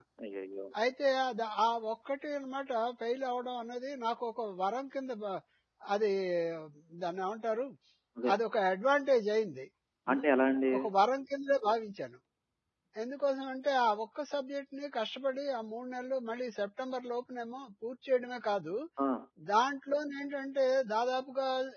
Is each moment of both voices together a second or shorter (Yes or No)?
Yes